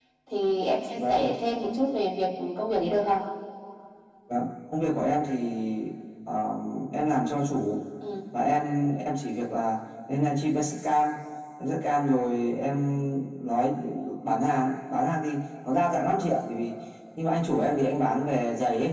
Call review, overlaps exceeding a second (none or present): none